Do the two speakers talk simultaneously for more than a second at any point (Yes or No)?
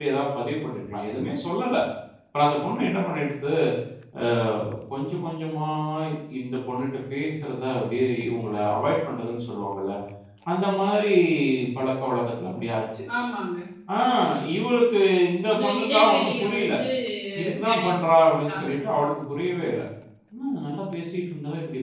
Yes